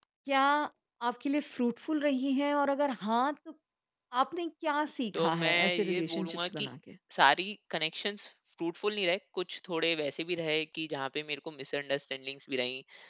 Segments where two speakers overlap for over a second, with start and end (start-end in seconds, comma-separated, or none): 5.1-6.7